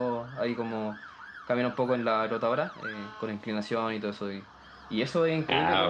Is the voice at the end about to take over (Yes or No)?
No